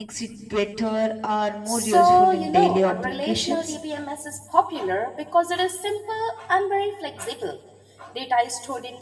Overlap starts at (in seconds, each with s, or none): 1.7 s